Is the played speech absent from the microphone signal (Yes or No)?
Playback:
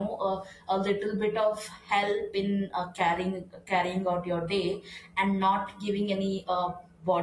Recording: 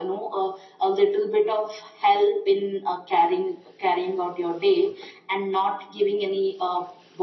No